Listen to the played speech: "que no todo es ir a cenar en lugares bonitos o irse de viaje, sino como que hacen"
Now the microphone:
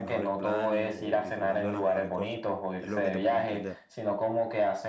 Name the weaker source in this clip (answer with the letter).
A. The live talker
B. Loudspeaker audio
A